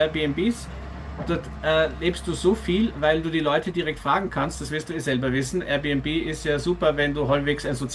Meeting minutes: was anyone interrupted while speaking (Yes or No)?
No